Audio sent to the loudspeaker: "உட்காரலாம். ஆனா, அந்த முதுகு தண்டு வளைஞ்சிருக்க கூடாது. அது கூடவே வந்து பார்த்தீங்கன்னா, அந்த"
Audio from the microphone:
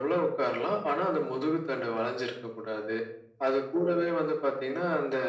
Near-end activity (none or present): none